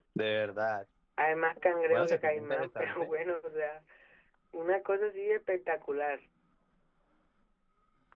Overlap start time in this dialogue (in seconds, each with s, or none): 1.9 s